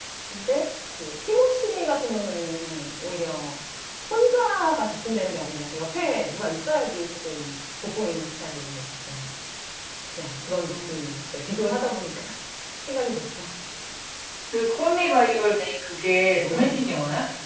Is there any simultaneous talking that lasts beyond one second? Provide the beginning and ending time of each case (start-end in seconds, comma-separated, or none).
none